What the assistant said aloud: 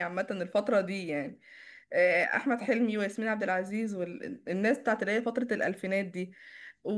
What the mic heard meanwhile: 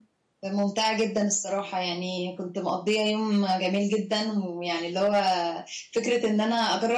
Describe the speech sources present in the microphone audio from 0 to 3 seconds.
user only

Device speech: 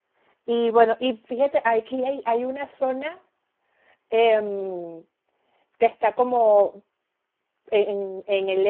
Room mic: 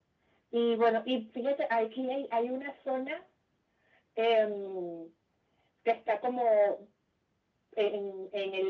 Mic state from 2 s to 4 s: echo only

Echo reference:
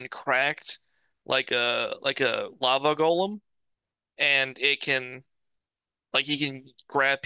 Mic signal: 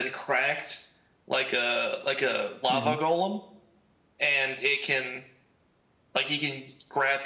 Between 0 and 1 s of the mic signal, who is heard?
echo only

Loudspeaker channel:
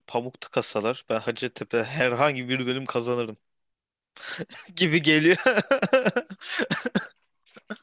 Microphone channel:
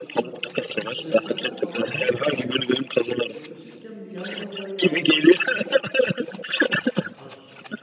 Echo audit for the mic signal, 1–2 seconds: both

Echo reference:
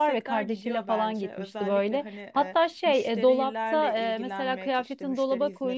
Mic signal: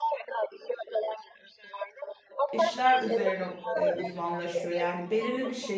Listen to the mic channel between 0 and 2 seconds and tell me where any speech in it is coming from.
echo only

